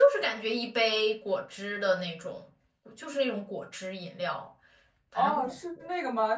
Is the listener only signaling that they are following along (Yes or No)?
No